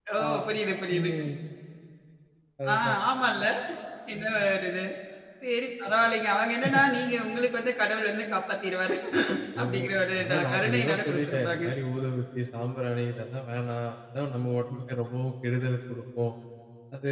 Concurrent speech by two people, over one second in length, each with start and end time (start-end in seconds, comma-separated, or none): 10.2-11.6